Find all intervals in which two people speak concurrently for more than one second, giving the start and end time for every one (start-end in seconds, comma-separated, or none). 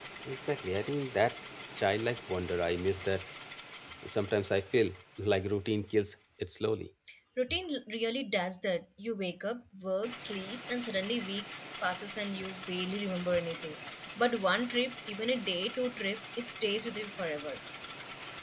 none